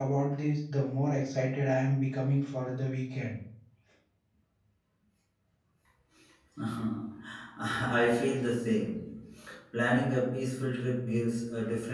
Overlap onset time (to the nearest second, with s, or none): none